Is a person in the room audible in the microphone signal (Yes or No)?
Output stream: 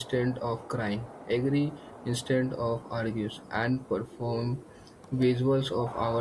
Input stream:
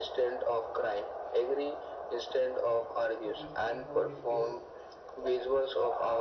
Yes